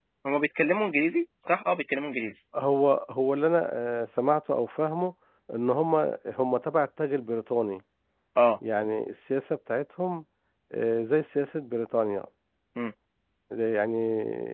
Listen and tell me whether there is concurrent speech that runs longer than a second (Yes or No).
No